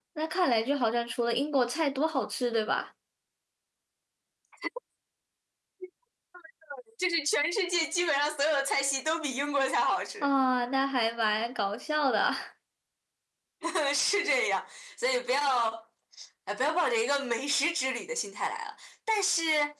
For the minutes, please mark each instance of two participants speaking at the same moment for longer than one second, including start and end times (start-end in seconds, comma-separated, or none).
none